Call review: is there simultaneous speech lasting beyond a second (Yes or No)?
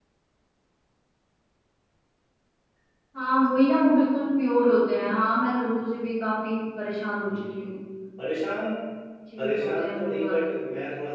Yes